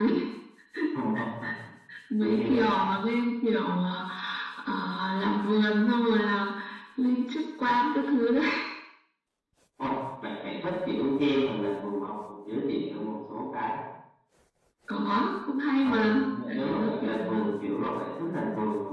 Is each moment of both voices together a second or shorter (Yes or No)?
No